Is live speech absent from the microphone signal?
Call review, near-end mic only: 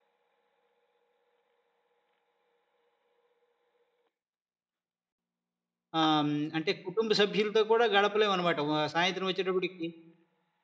No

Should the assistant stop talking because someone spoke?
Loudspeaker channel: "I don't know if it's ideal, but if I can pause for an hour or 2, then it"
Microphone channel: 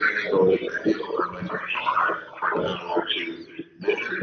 No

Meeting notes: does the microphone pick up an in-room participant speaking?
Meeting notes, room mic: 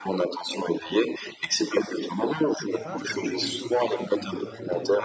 Yes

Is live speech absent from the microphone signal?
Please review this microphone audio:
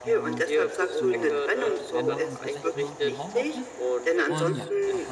No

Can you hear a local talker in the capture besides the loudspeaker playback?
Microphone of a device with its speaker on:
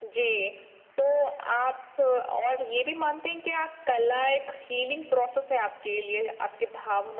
No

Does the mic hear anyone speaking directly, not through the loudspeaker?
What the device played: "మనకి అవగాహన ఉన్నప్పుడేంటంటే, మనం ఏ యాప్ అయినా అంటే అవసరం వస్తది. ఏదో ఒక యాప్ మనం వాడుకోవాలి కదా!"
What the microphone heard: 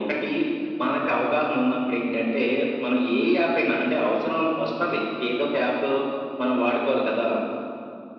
No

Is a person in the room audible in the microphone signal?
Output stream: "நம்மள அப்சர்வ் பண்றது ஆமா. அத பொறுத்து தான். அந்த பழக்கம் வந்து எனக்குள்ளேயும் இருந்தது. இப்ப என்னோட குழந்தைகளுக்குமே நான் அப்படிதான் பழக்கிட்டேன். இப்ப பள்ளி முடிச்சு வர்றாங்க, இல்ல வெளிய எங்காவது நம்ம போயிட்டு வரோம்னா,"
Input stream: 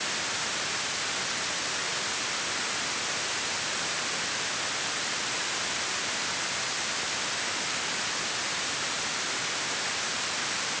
No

